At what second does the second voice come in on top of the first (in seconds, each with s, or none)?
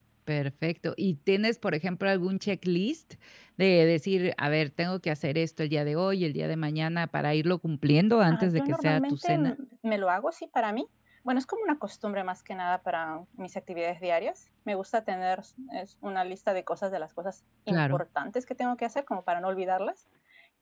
8.3 s